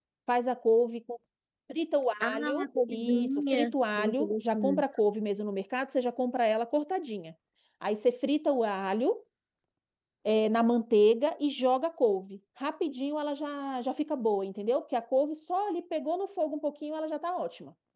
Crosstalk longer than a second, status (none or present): present